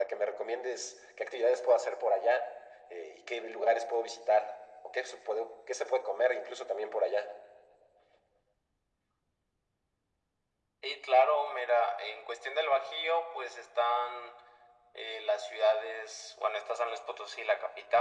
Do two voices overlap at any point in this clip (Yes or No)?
No